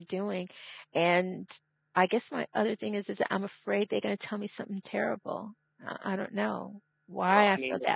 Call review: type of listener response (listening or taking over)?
taking over